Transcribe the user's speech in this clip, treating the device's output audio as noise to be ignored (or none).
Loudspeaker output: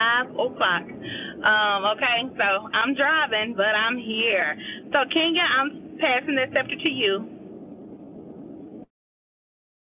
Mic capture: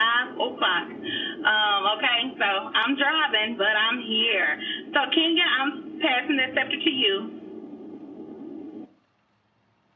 none